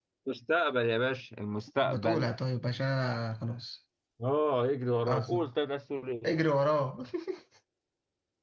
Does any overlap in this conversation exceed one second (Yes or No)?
No